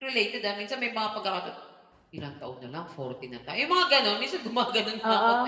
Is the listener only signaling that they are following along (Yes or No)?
No